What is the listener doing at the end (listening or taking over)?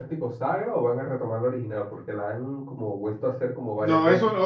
taking over